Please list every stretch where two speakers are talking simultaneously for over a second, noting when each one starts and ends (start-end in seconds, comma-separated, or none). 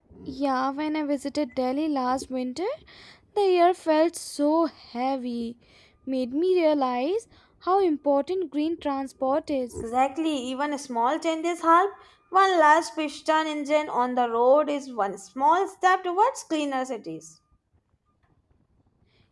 none